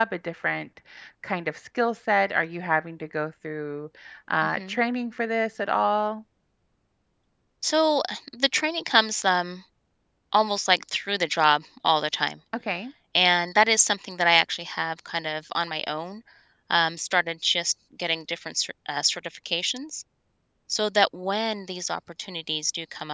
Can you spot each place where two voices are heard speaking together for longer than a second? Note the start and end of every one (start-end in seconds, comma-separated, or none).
none